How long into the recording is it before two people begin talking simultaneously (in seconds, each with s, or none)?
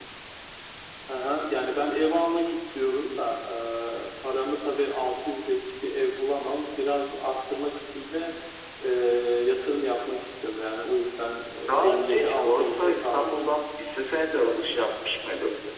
11.8 s